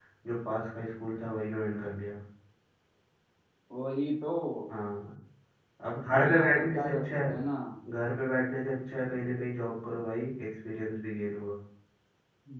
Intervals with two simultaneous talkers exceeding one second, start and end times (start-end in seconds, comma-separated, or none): 6.0-7.4